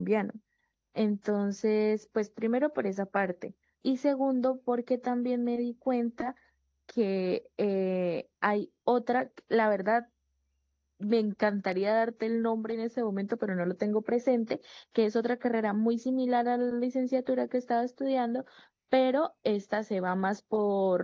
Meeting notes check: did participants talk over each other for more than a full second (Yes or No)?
No